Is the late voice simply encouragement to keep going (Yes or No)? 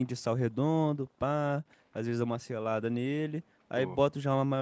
Yes